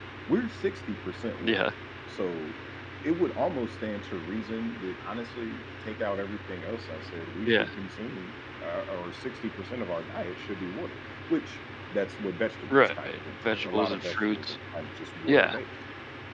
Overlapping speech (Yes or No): Yes